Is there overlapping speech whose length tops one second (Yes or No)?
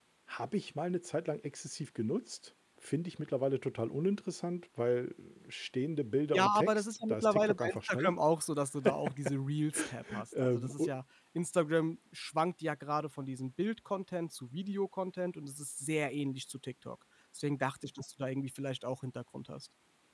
Yes